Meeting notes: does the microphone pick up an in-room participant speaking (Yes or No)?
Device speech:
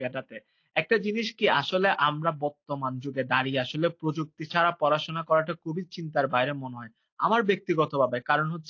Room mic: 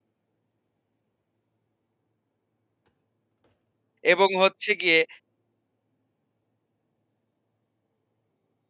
Yes